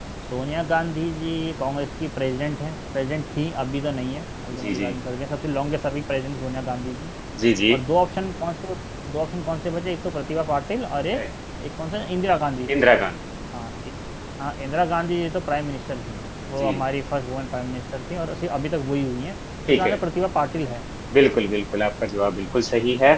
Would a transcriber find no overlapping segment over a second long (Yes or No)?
Yes